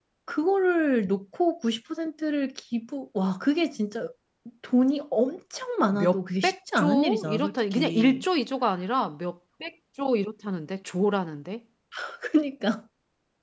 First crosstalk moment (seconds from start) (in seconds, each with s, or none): 5.9 s